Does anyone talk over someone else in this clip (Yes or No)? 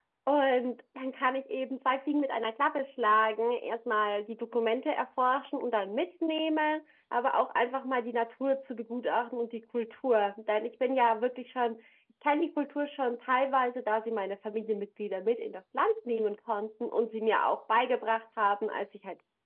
No